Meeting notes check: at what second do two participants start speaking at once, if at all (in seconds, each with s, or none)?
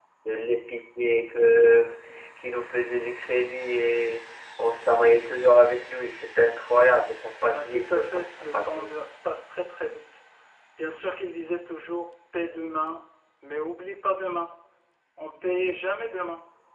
7.5 s